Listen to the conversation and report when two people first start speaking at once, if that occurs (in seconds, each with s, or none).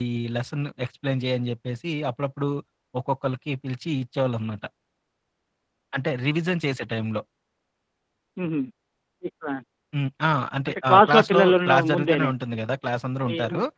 10.7 s